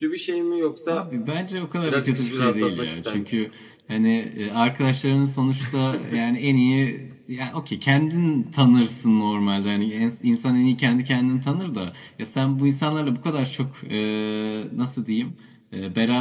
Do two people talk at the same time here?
Yes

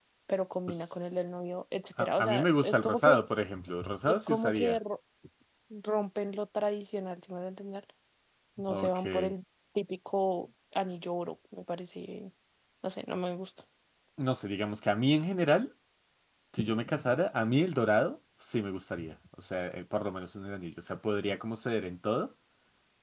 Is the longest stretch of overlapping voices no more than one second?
No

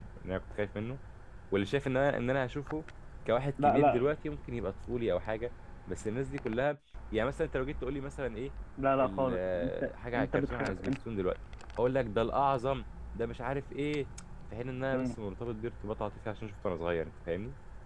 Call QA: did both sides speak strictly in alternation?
No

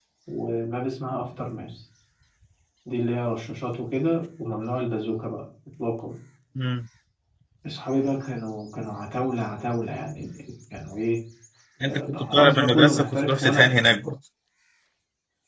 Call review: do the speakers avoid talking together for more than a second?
No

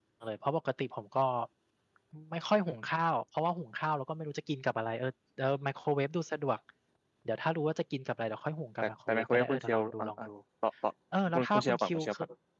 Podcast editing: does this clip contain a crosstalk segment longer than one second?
Yes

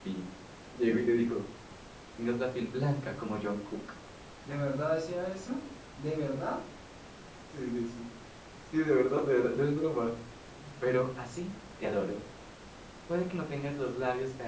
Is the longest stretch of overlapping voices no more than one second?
Yes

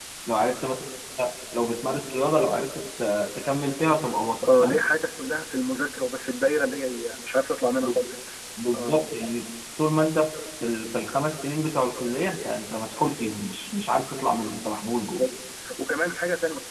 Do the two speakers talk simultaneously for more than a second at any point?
No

